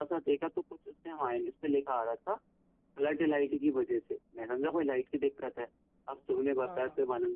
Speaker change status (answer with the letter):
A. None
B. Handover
A